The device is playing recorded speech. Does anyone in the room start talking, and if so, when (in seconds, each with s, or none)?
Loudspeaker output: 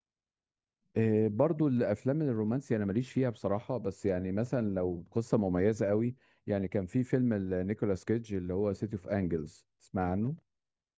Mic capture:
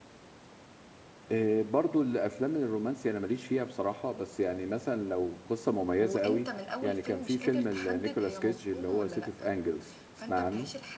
6.0 s